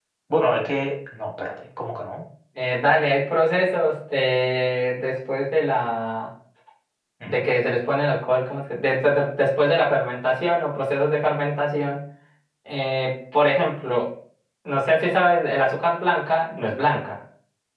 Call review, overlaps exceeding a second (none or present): none